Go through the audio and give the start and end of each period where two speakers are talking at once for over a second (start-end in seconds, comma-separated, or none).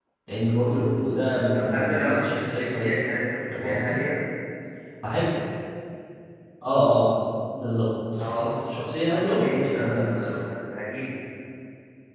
1.5-3.0, 9.0-10.4